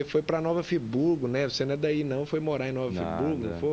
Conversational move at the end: taking over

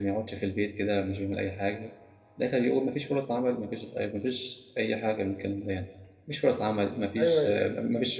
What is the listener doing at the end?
listening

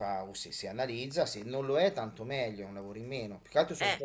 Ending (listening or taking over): listening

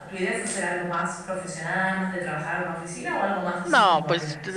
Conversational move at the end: taking over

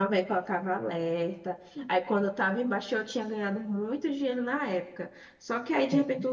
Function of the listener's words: listening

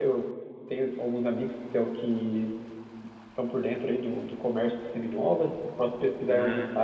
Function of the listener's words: listening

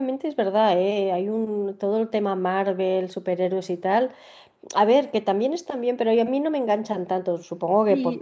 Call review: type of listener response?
taking over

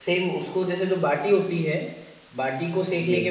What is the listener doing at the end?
listening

